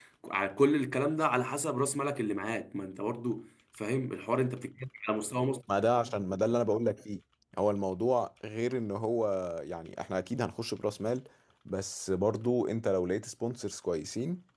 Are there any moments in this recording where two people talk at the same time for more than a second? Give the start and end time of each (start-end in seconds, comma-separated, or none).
none